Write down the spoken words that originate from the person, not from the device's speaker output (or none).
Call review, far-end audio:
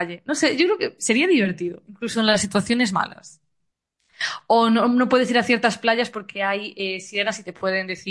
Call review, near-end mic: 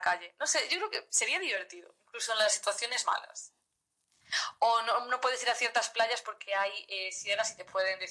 none